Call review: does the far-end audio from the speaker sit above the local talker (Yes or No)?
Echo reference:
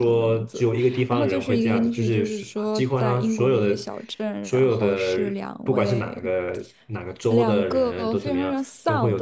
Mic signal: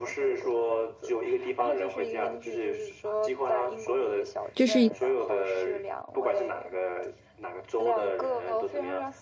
No